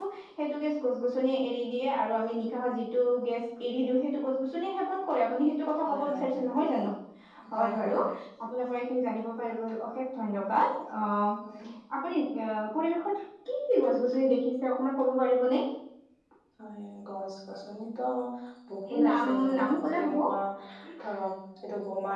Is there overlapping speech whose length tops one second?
Yes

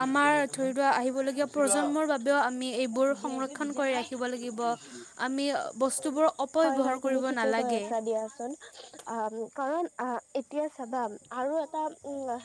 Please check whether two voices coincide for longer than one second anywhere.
Yes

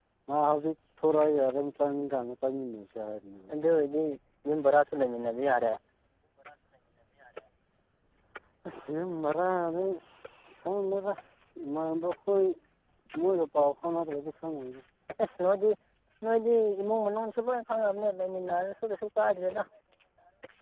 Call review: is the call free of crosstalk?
Yes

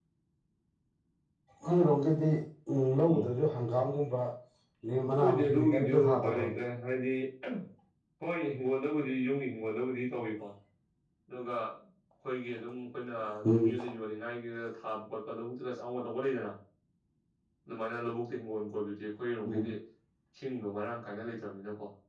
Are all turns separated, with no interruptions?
No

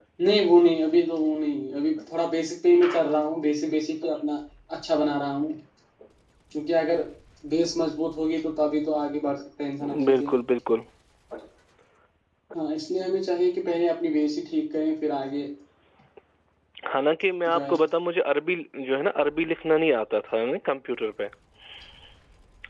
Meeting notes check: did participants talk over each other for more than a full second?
No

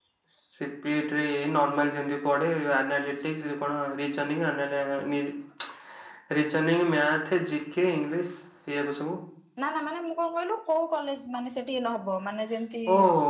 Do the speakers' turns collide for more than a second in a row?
No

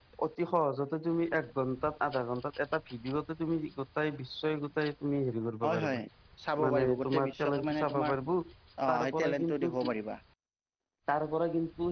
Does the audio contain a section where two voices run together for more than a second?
Yes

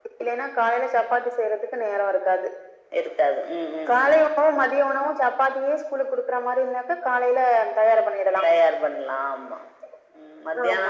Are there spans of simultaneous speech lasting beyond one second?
No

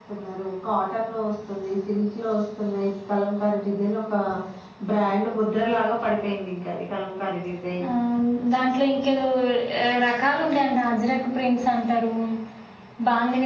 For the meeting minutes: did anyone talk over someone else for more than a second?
No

